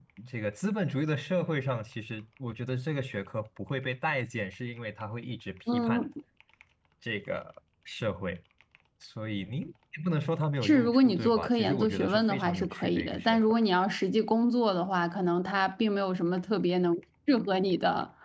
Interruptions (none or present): present